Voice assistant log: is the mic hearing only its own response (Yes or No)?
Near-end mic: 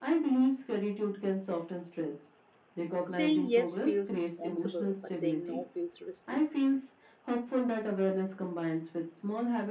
No